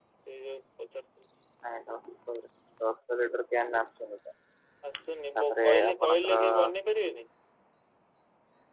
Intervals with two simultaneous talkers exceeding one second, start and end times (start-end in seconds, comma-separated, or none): 5.1-6.4